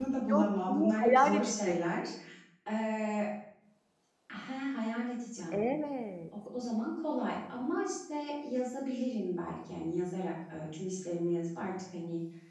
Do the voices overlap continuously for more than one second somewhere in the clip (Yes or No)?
Yes